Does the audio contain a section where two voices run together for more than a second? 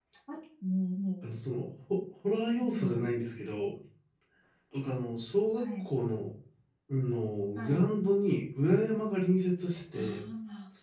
No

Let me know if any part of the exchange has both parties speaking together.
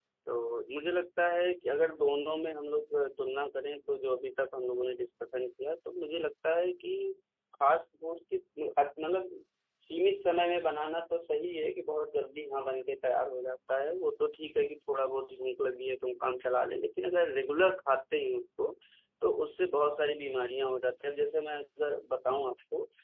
No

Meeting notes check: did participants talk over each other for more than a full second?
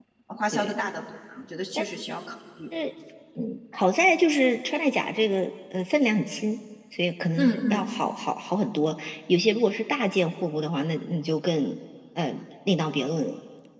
No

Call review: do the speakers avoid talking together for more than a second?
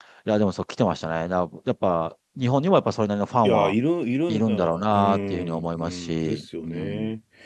No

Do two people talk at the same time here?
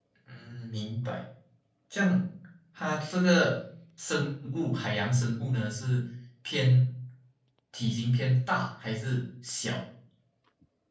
No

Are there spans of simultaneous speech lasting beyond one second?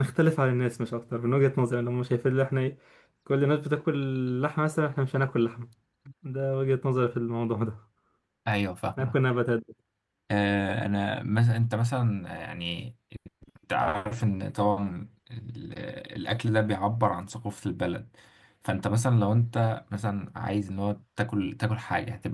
No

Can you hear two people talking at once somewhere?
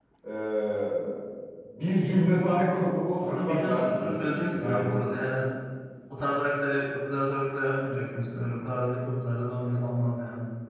Yes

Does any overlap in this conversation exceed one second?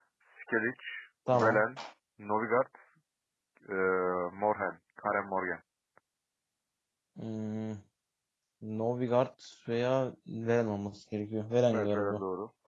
No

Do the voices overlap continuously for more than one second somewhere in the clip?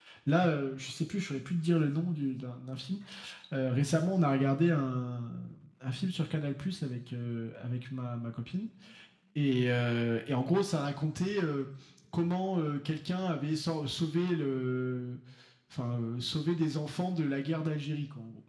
No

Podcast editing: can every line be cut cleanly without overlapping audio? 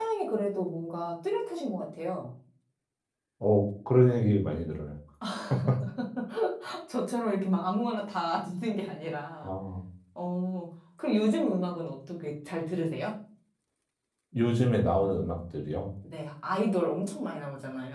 Yes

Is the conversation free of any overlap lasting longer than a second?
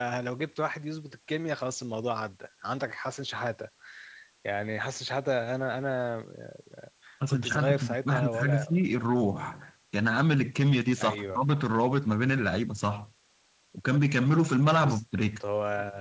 No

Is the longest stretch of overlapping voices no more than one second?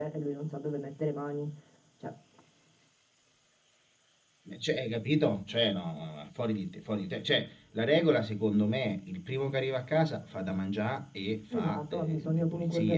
No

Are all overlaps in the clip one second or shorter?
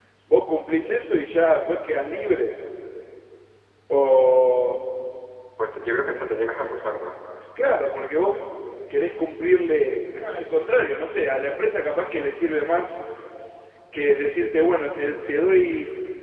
Yes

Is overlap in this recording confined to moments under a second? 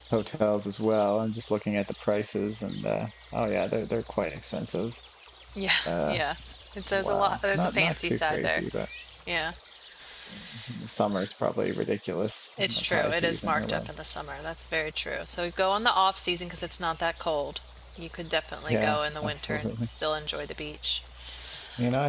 No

